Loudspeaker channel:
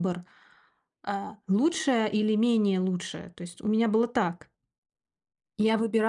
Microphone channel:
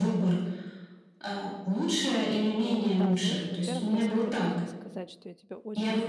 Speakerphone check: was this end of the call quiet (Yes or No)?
No